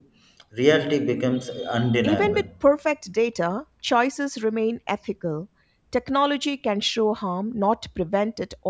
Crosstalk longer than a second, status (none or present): none